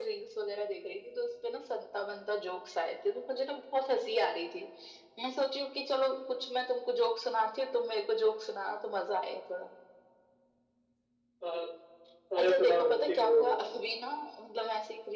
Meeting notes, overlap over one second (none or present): present